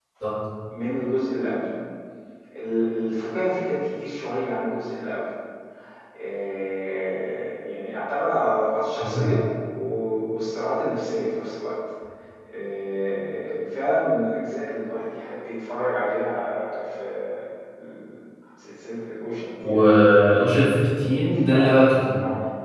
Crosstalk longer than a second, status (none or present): none